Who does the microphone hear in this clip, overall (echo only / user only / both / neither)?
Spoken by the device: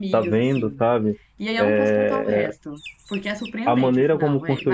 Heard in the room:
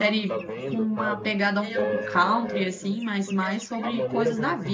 both